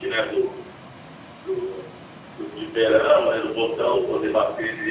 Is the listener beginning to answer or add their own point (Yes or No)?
No